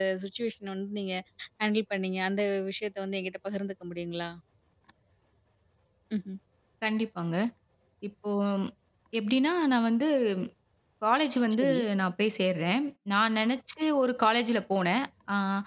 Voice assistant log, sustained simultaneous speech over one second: none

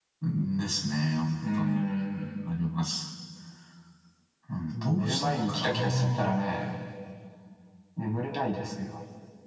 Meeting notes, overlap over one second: present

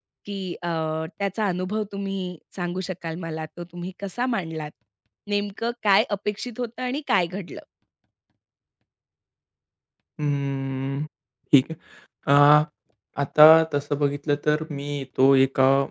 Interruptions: none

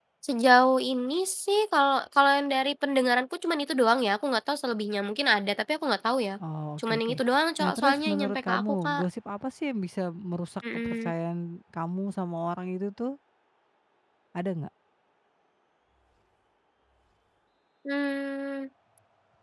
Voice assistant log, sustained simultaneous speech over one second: present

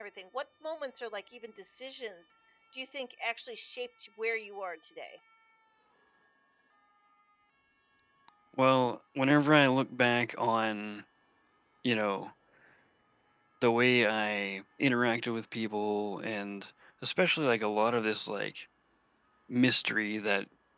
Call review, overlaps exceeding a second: none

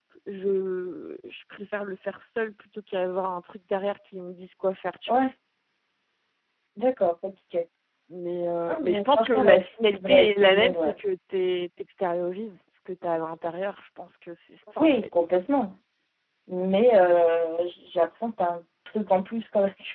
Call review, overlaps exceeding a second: present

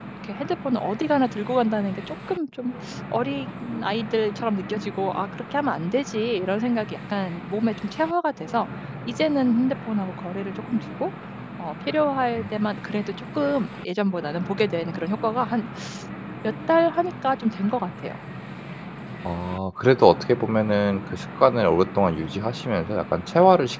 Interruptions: none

